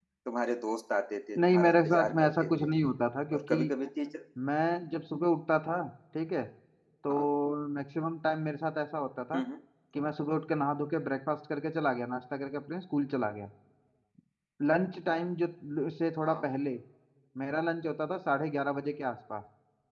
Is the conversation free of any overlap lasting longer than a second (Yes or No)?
No